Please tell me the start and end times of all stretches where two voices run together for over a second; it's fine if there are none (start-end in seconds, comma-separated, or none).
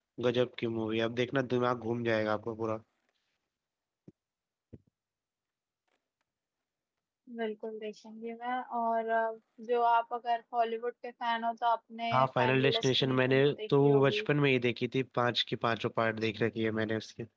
12.1-14.3